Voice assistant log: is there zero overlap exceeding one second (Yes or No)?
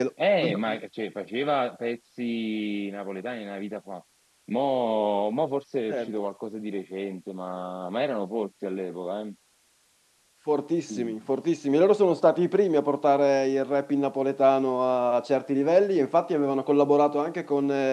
Yes